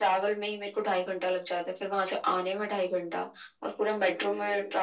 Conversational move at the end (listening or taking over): listening